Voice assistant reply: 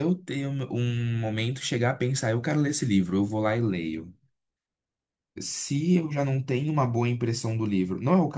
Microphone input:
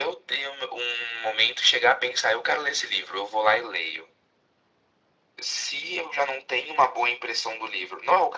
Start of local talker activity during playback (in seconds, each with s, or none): none